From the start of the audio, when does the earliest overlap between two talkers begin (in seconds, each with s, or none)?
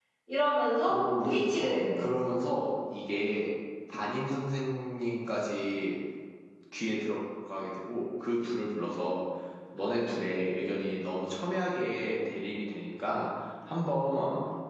0.9 s